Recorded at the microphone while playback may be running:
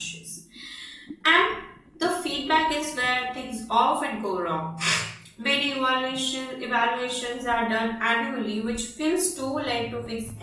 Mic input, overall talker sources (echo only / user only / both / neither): user only